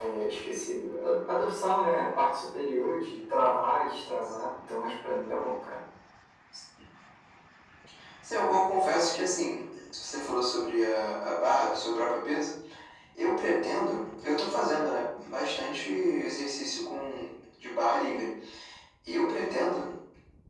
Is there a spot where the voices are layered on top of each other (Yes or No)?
No